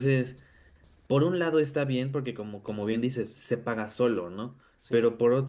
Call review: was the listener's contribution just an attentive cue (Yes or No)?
Yes